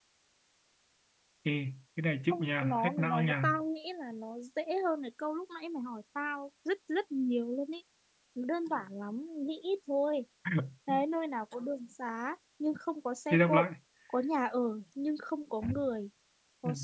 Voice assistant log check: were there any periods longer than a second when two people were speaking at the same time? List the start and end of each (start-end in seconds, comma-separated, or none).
2.3-3.6